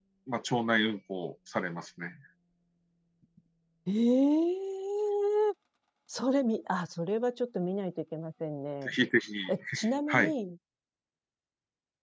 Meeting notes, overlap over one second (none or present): none